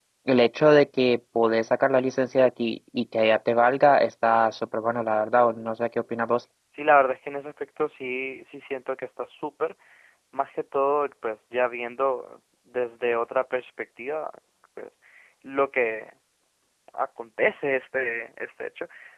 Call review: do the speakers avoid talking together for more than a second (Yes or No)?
Yes